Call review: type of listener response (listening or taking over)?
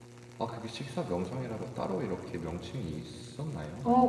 taking over